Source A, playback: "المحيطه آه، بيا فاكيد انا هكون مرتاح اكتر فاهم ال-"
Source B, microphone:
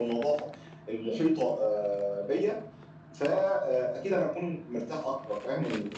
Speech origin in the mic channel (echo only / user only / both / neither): echo only